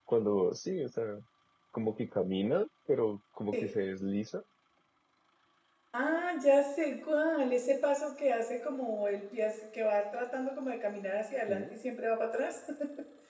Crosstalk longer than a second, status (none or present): none